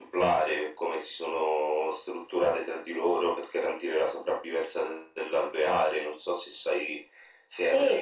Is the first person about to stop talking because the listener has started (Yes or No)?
Yes